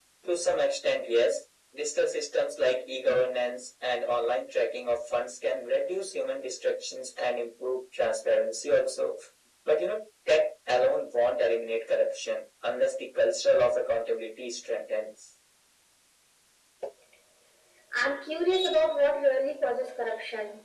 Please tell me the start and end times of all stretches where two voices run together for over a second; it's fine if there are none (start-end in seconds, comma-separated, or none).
none